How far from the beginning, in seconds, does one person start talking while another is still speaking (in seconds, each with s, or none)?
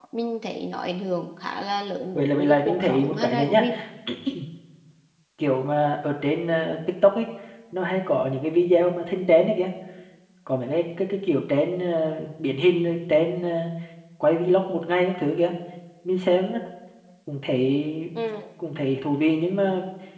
2.1 s